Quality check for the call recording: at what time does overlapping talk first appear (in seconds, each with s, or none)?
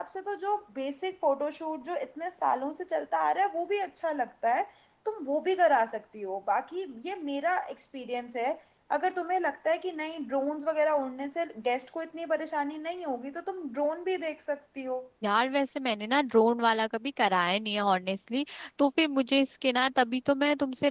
none